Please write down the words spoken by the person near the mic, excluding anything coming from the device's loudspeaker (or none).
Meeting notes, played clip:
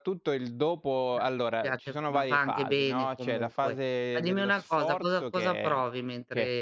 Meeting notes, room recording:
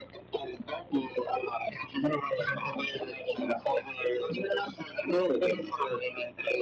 none